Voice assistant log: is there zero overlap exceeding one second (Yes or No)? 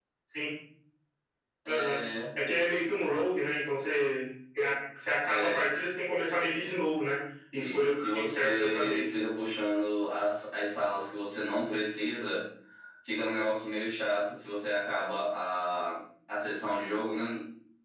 No